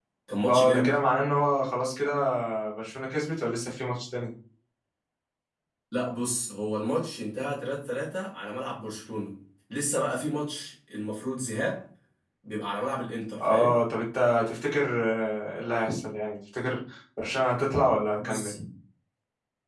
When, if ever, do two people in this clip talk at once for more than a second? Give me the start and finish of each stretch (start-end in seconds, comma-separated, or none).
none